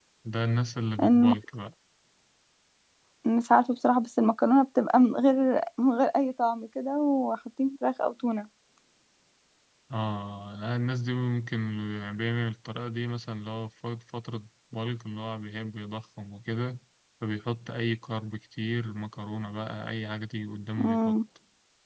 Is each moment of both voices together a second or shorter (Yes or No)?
Yes